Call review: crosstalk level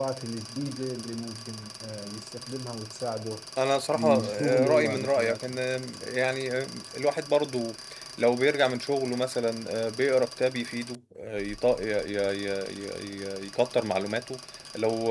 present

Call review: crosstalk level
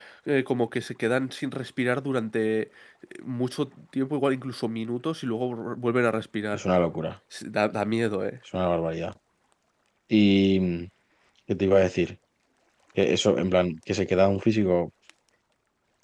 none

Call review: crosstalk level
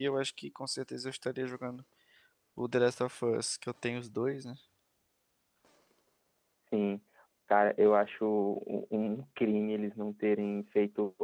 none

